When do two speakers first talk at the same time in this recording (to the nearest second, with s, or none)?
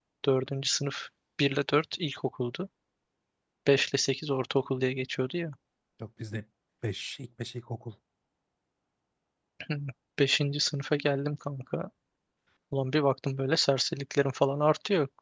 none